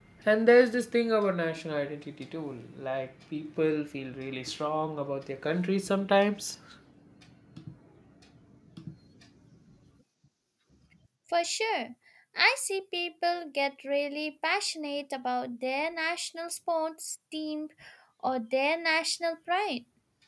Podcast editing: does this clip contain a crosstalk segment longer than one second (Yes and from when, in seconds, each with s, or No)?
No